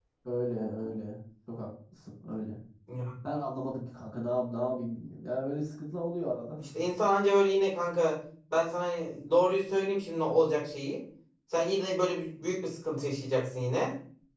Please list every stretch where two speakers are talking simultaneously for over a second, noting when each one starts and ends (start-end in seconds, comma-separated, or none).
none